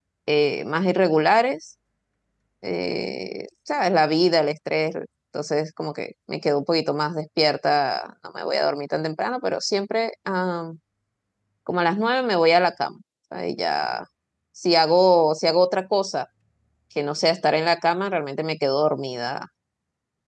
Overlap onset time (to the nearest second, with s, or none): none